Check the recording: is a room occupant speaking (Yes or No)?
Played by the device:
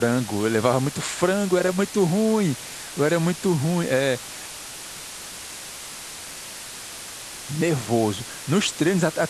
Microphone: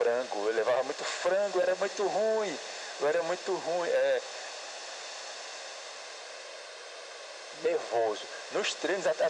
No